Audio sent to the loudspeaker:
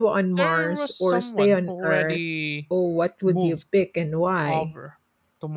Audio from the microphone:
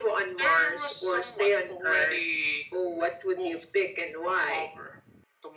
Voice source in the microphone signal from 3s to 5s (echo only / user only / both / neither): echo only